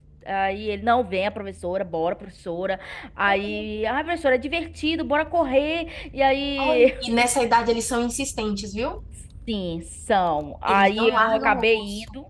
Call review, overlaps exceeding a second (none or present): present